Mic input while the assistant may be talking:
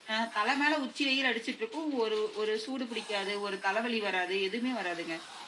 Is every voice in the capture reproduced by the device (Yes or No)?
Yes